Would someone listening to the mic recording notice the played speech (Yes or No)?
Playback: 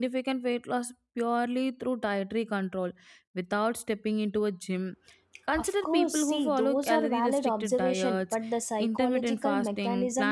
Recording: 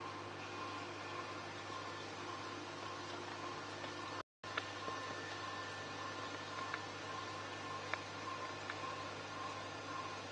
No